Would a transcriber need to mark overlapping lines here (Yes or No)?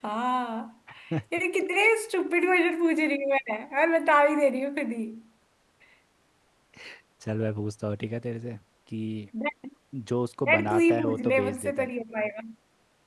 Yes